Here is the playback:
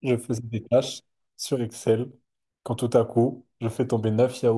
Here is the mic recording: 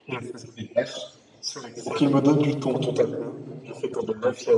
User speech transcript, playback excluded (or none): pour qu'il me donne du thon.